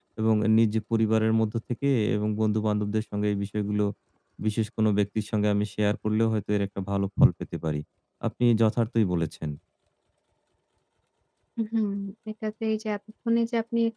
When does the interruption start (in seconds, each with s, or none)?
none